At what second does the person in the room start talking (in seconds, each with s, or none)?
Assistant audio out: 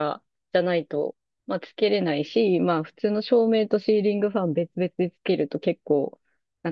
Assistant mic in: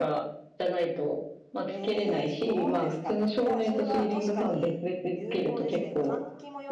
1.6 s